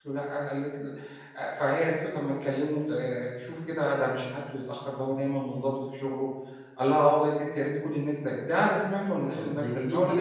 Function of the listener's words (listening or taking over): taking over